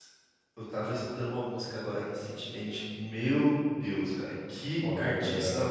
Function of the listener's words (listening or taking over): listening